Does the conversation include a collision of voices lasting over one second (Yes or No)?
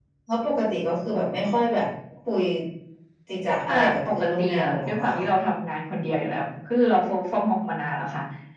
Yes